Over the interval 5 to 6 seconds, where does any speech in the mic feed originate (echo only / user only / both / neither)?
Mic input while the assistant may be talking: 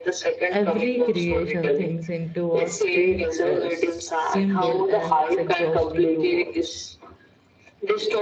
both